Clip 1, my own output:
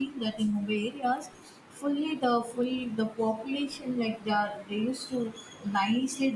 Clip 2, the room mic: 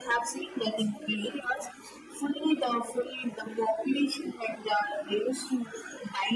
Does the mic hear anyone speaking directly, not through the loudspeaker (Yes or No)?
No